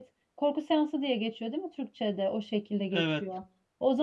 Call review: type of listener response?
listening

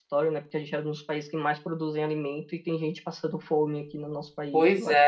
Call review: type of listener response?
taking over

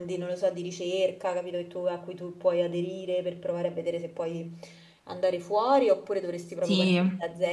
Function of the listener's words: listening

